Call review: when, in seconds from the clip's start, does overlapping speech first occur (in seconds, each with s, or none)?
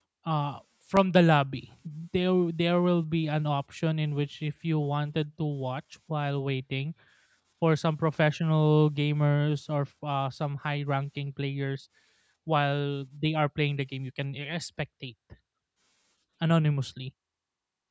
none